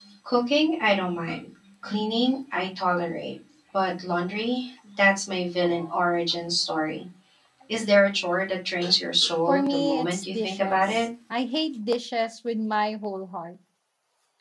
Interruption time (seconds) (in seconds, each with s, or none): 9.5 s